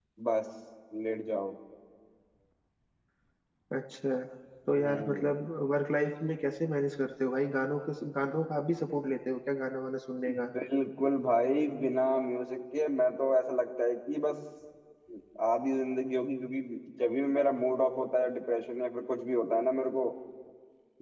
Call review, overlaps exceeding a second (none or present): none